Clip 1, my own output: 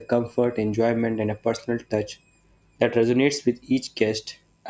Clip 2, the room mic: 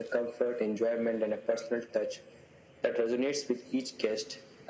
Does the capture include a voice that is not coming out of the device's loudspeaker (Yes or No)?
No